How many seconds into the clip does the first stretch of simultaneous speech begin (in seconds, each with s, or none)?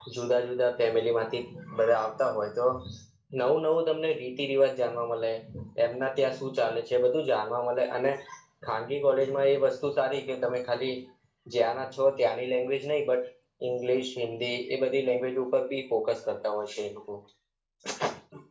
none